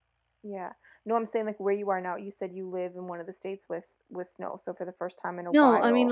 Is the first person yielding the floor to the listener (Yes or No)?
Yes